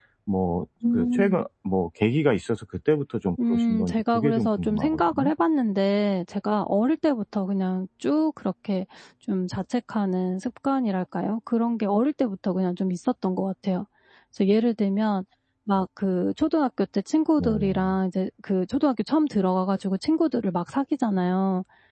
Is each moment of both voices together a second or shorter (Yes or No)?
No